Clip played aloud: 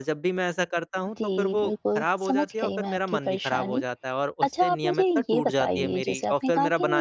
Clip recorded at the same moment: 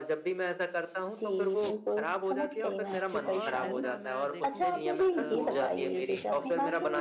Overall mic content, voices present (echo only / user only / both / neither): both